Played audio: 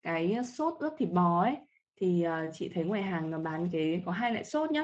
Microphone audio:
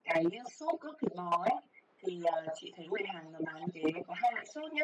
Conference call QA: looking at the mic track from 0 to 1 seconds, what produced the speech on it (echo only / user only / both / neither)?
echo only